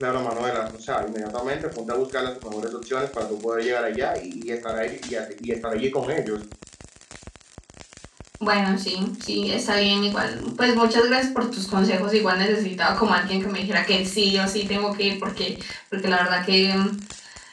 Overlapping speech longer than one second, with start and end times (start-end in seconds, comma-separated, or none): none